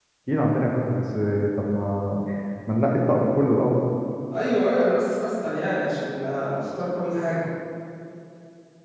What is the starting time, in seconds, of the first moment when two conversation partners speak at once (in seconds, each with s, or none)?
none